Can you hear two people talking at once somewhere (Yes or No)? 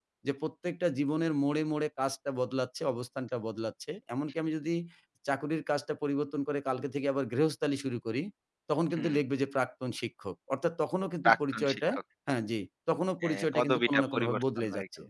Yes